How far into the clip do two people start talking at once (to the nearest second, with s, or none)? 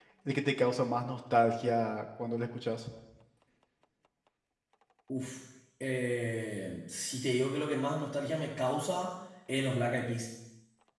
none